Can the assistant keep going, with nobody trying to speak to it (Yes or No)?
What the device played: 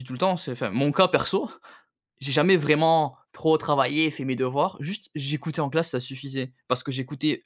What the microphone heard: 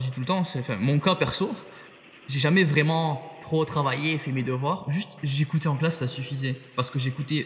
Yes